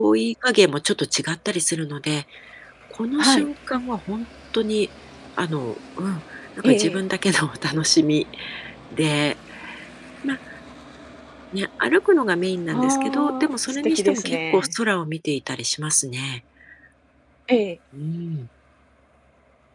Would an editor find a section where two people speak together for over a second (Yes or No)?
Yes